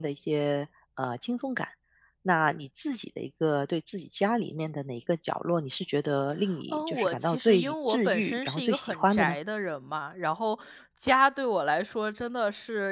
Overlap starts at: 6.7 s

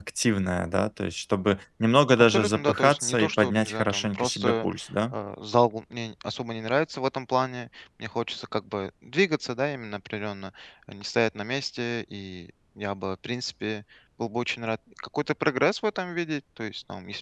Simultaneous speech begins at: 2.2 s

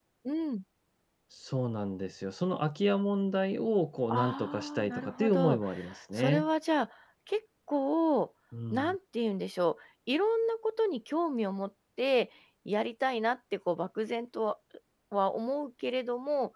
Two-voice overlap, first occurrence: 4.1 s

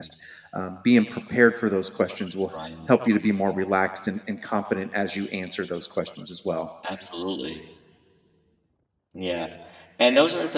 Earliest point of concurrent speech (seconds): none

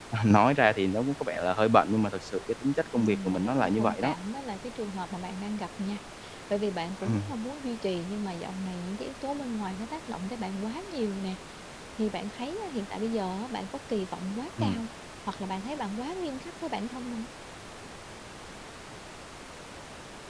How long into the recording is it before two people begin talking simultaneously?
2.9 s

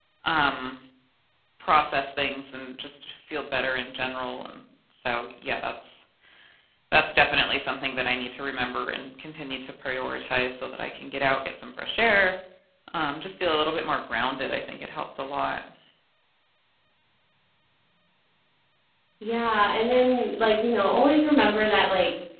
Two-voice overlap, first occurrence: none

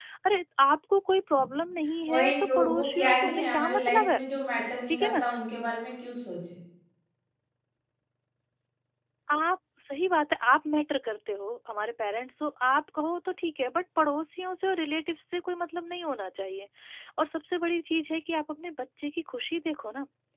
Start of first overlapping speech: 2.1 s

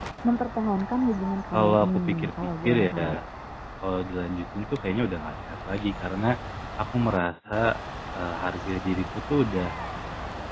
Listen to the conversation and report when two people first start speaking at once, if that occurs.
1.5 s

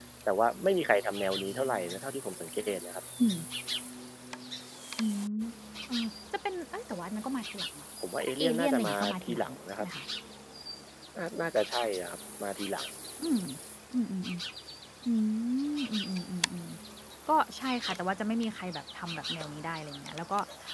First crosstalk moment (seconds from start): 8.0 s

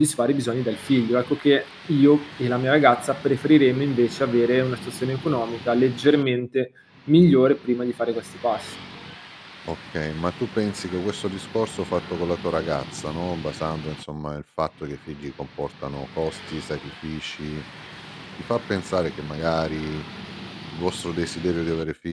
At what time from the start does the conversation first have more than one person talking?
none

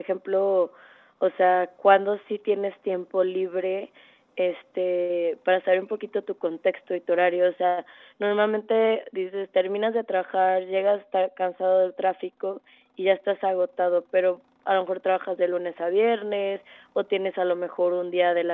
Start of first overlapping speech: none

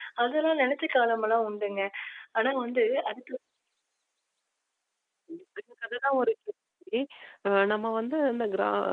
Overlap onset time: none

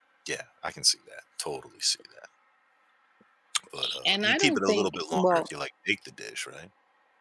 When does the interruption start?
4.0 s

